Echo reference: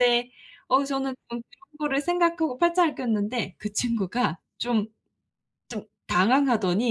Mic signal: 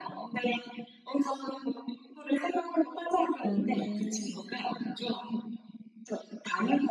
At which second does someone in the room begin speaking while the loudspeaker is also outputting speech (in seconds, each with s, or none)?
3.4 s